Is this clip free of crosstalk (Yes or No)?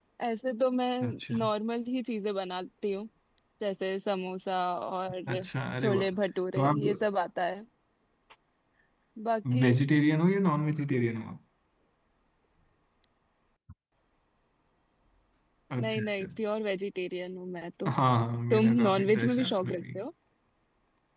No